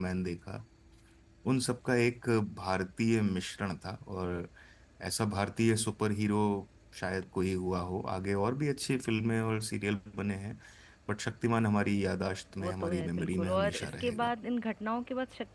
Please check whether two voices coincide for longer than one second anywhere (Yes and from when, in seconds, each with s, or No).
Yes, from 12.6 s